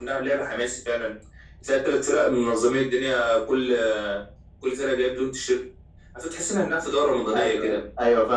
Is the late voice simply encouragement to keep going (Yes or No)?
No